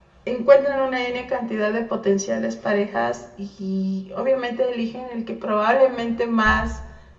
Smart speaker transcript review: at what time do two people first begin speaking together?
none

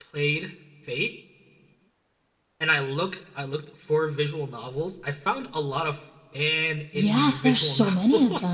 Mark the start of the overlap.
7 s

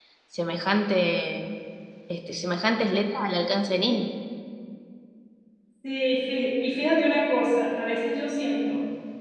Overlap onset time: none

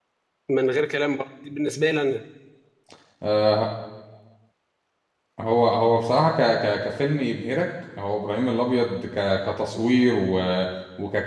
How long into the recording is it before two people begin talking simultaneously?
none

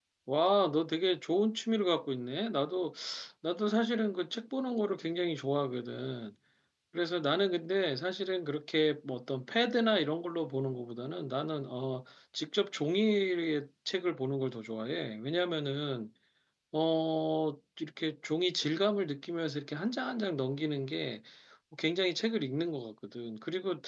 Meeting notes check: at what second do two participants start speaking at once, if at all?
none

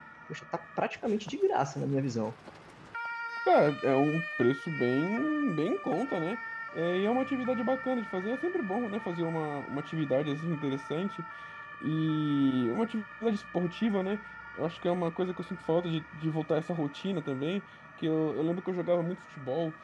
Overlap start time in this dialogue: none

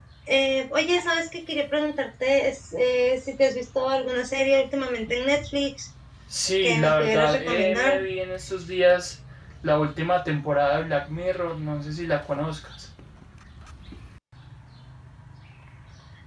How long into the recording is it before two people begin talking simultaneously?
7 s

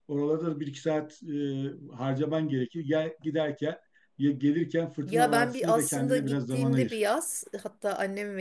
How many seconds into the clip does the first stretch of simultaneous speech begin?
5 s

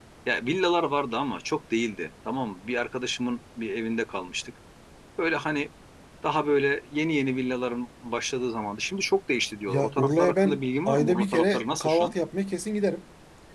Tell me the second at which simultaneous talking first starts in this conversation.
10 s

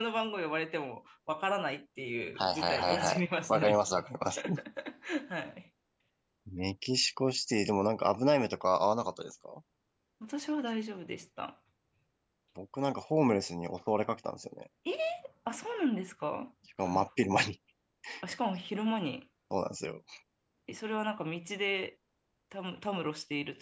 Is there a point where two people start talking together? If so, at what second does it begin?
2 s

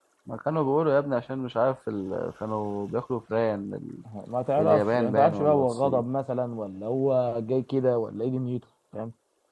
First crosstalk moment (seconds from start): 5 s

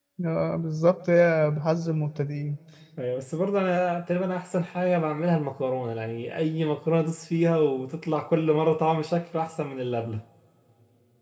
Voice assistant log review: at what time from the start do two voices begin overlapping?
none

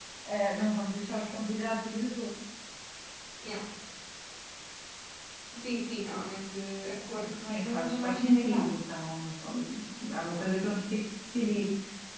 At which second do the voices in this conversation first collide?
7 s

